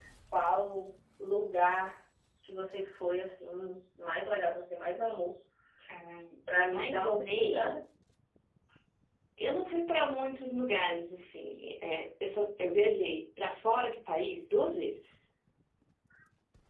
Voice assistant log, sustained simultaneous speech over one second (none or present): present